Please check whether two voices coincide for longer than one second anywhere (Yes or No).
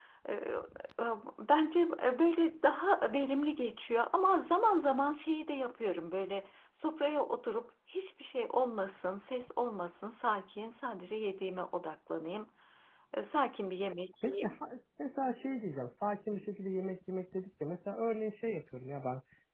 No